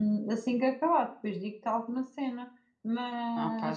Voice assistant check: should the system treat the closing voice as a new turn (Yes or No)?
No